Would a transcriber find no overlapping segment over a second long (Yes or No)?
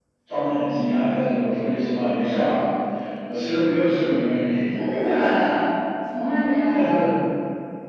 Yes